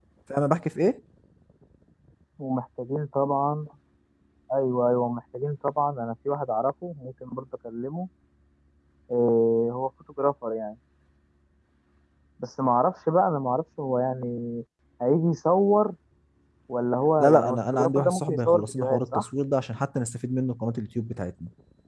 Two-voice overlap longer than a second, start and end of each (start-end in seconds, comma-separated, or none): 17.2-19.2